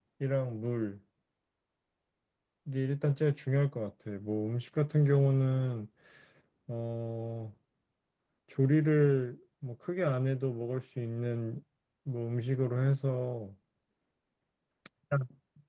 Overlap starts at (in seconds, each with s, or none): none